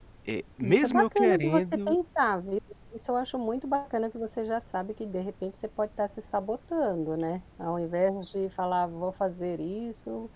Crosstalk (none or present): present